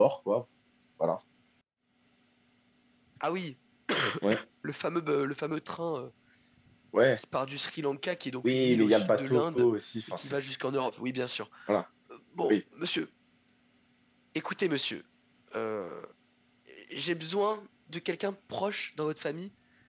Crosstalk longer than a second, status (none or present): present